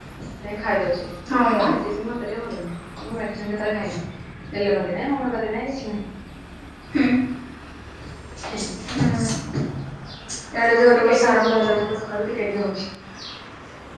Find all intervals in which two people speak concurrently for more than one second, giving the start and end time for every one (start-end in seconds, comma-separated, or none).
10.7-11.9